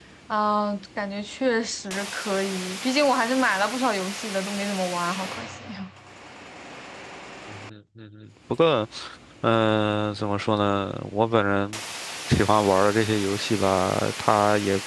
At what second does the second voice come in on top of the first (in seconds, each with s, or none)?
none